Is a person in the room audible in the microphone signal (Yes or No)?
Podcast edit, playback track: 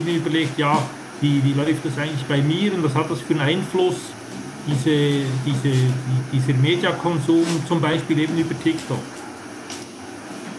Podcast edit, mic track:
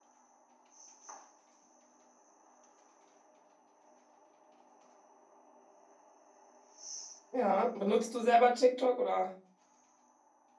Yes